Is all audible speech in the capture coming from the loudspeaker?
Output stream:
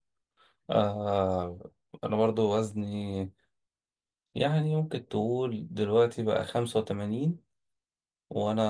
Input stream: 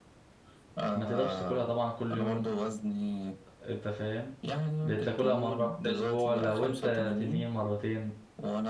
No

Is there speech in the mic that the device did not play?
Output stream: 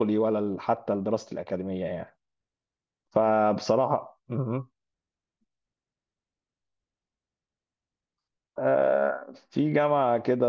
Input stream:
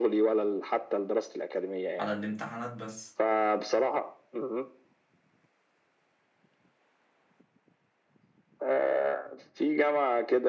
Yes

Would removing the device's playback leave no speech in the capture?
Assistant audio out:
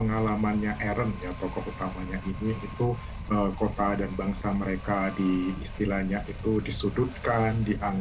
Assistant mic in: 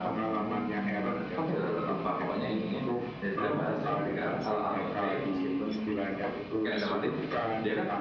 No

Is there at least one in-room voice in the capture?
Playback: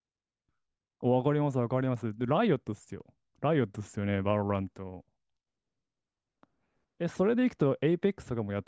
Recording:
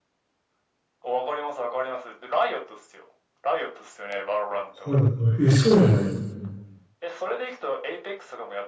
Yes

